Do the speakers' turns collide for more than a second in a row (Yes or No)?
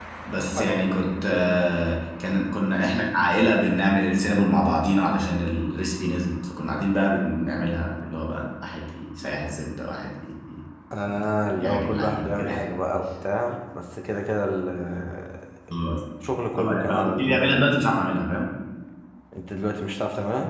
Yes